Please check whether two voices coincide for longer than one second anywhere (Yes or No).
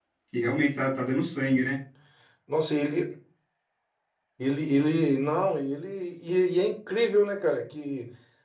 No